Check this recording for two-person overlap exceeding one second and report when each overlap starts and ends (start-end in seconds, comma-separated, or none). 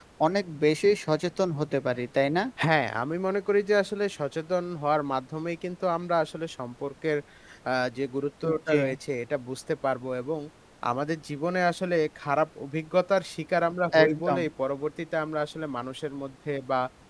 none